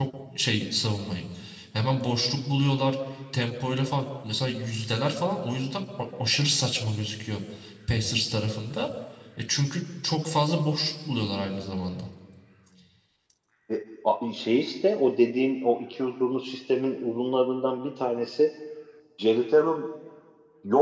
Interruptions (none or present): none